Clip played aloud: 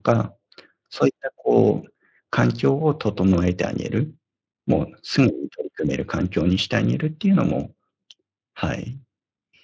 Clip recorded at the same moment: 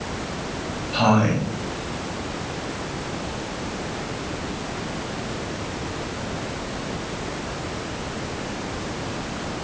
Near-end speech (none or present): present